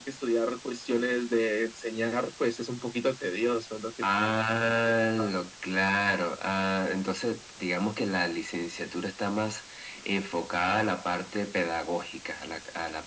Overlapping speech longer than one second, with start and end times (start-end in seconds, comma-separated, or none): none